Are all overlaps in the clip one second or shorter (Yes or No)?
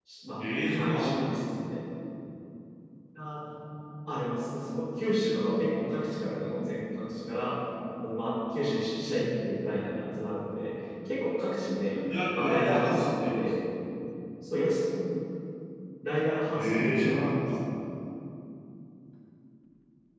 No